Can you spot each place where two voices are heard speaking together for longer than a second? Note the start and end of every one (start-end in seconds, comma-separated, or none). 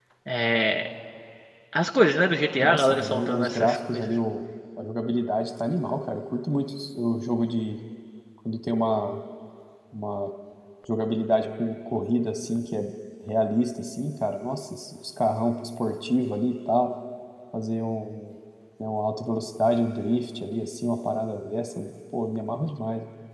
2.6-4.1